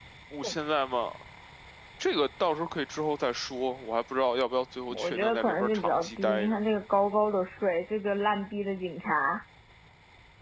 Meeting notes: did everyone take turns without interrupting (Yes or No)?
No